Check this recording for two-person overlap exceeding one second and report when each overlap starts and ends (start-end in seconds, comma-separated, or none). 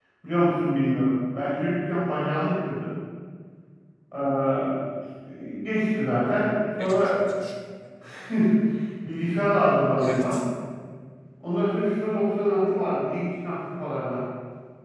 none